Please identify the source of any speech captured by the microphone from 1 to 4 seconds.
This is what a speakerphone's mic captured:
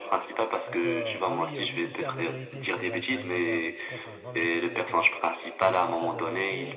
both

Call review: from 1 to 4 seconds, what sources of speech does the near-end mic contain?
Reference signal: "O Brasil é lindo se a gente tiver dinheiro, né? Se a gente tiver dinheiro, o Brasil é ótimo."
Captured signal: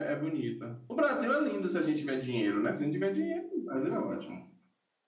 echo only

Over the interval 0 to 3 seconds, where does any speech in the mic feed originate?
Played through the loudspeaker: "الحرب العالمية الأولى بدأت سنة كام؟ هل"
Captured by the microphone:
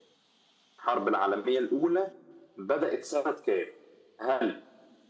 echo only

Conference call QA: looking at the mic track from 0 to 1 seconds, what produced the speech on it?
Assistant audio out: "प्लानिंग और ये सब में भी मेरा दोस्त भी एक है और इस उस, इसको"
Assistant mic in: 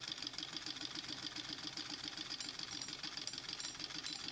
neither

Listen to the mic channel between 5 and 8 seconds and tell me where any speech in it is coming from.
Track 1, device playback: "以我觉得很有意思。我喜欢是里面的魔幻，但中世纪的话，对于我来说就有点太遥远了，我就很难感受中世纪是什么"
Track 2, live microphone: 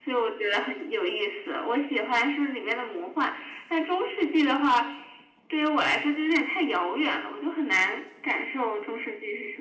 echo only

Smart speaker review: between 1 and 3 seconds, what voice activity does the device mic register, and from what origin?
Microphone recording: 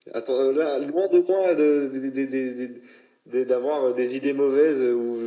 echo only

